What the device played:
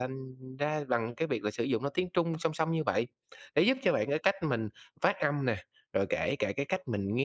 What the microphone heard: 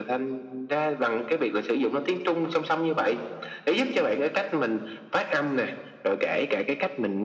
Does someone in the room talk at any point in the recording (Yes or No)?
No